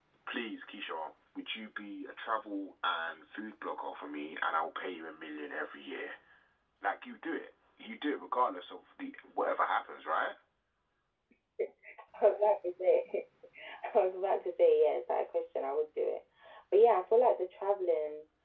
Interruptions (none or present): none